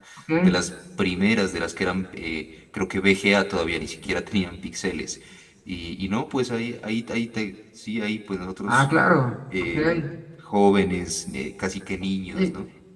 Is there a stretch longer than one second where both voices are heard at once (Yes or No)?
No